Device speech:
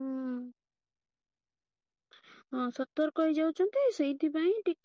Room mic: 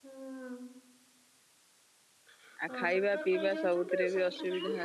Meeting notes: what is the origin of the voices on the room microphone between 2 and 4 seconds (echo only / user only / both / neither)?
both